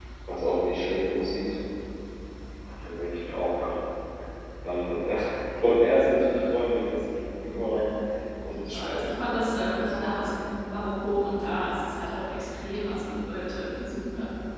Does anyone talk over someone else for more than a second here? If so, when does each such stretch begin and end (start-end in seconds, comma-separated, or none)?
8.7-10.3